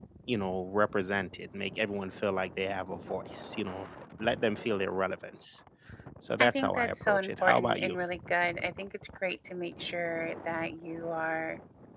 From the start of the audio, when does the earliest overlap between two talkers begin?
6 s

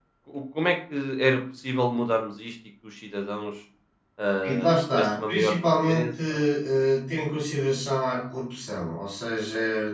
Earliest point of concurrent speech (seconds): 4 s

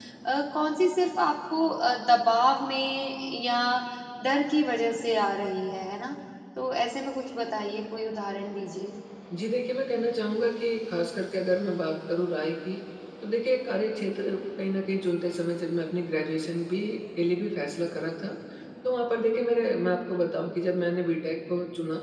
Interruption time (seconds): none

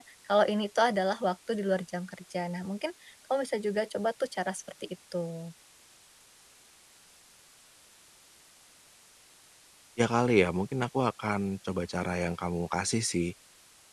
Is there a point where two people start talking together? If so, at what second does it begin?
none

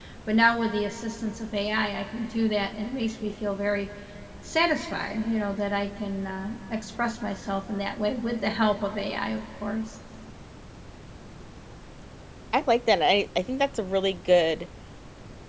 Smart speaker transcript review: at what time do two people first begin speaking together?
none

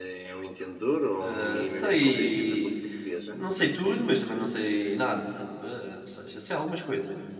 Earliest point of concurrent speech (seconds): 1 s

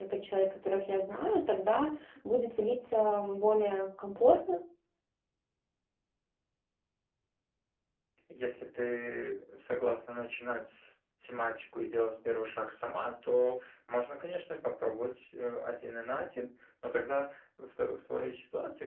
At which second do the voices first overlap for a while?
none

